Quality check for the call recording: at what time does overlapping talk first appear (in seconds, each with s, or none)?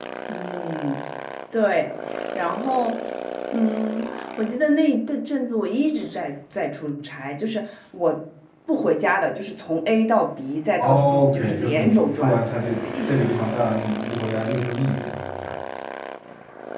10.8 s